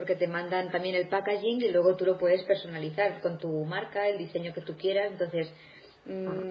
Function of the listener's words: listening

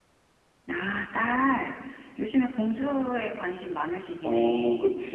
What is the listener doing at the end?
taking over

